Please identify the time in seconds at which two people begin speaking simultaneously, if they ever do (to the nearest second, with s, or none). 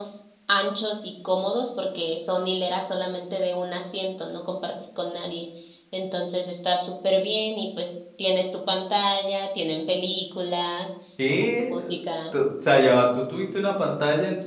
none